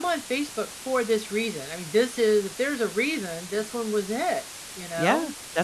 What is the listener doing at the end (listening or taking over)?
taking over